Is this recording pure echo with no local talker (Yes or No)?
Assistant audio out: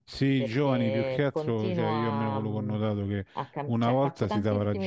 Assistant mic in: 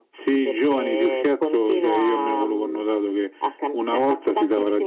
Yes